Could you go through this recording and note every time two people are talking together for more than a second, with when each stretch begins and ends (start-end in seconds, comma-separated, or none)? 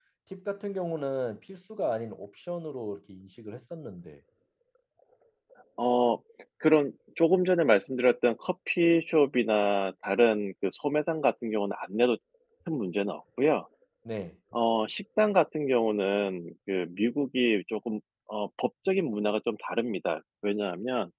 none